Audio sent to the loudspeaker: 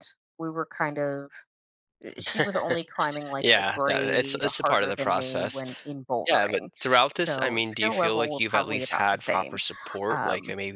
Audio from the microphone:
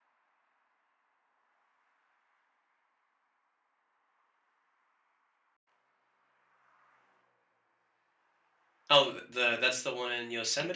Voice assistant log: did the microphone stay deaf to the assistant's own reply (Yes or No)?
Yes